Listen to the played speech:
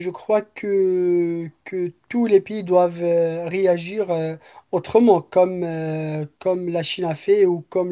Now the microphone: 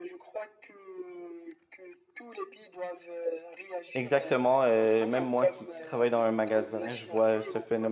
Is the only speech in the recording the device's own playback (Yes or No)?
No